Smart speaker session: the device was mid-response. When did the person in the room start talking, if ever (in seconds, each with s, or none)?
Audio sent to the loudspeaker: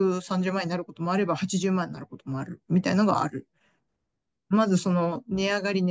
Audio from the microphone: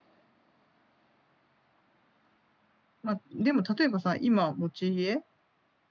3.0 s